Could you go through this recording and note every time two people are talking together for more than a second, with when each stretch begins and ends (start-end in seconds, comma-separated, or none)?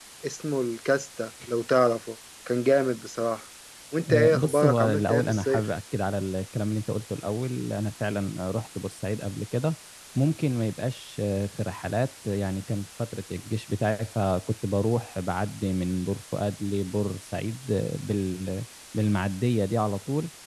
4.1-5.6